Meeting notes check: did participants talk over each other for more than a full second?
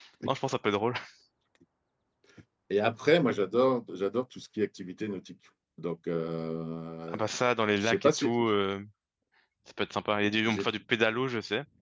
No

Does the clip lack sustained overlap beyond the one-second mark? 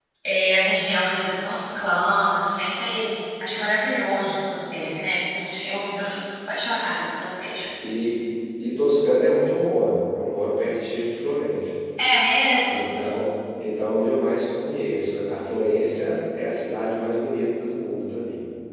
Yes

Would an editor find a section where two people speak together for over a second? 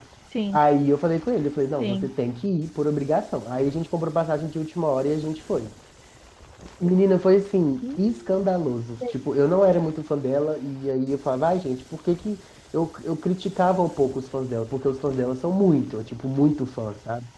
No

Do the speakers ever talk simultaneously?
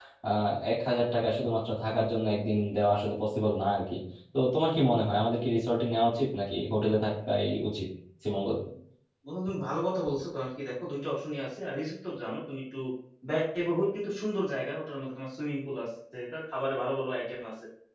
No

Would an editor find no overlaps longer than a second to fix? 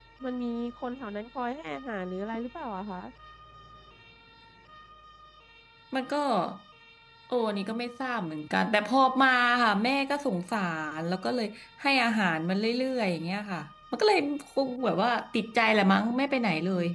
Yes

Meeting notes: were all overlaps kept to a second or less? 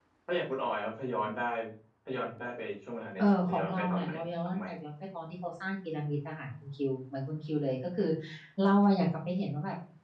No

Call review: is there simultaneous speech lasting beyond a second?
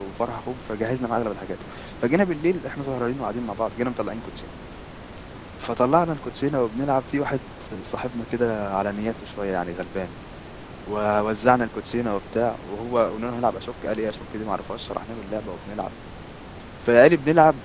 No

